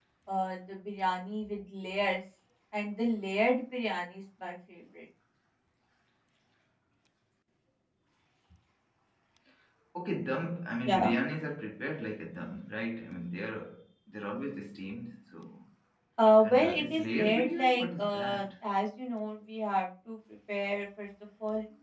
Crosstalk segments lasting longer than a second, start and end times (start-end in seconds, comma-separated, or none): 16.4-18.5